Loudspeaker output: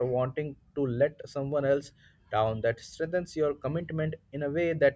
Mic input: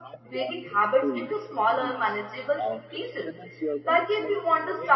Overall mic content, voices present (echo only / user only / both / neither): both